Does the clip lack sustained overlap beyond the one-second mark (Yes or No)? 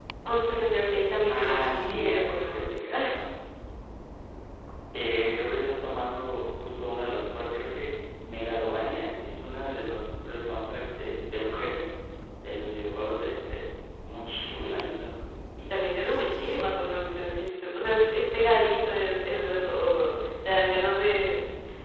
No